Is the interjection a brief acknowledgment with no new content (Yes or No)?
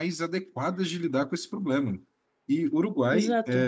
Yes